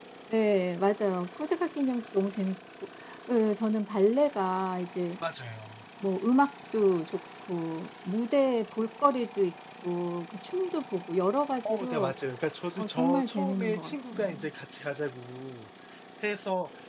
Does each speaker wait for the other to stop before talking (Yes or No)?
No